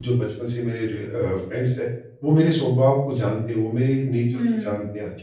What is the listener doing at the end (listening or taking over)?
listening